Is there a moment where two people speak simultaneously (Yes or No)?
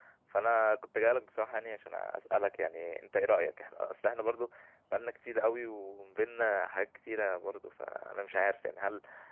No